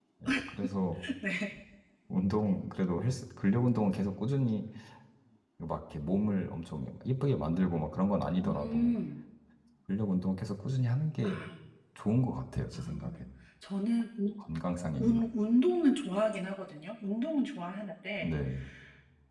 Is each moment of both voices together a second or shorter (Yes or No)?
Yes